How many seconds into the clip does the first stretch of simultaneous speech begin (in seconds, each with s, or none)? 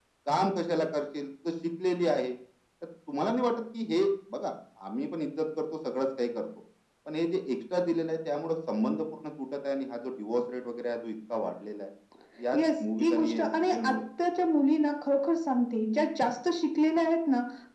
12.5 s